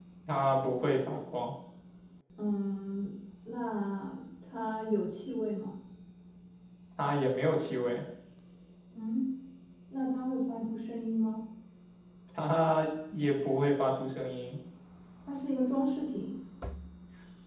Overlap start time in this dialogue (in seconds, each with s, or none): none